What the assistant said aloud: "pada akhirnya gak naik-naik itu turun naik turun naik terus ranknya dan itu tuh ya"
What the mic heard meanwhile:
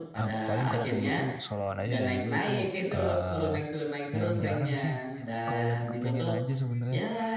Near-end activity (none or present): present